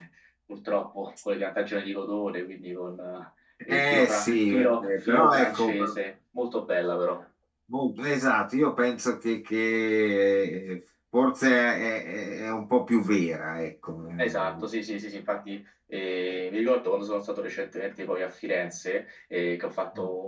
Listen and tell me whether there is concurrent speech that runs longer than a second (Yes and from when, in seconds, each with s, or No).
Yes, from 3.7 s